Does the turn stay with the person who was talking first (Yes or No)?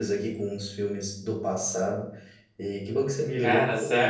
Yes